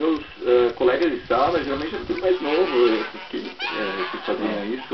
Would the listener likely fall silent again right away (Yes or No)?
Yes